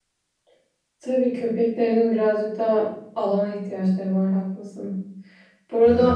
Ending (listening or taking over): listening